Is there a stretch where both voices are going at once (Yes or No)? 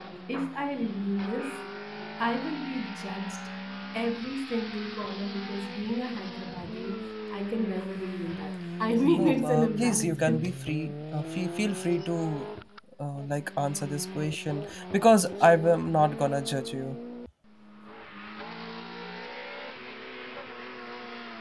Yes